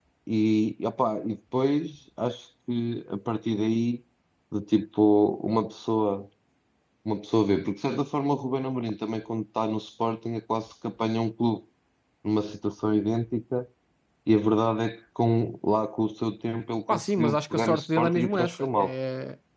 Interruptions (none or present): present